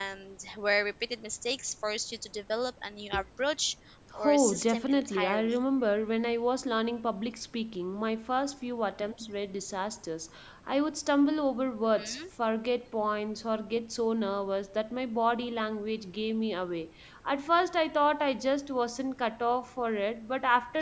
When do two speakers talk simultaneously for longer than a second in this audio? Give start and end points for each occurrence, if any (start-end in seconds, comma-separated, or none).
4.2-5.6